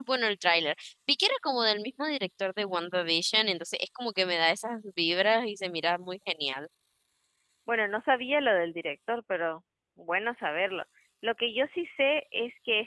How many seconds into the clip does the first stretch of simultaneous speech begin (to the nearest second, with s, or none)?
none